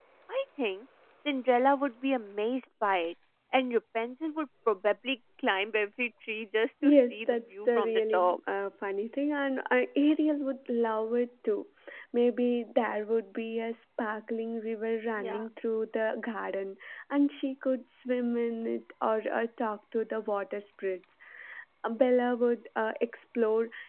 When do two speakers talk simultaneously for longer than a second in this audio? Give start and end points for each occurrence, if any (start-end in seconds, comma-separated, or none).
6.8-8.4